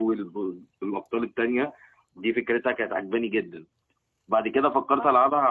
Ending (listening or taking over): listening